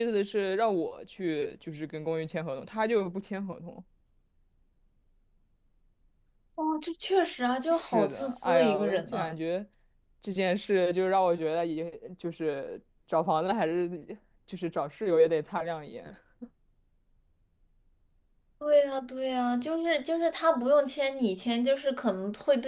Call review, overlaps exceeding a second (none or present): present